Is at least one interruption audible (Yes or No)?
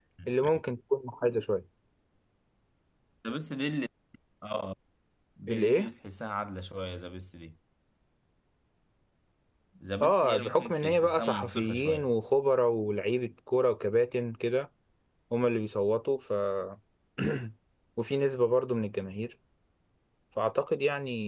Yes